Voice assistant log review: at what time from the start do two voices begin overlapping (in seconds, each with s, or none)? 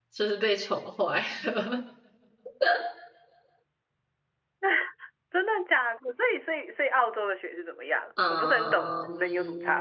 8.2 s